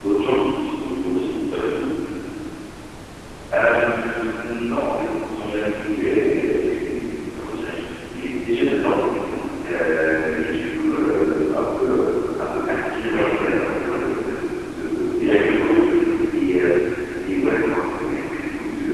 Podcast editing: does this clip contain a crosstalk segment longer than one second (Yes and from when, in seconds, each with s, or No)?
No